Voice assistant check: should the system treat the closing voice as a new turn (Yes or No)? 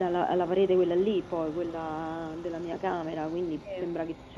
No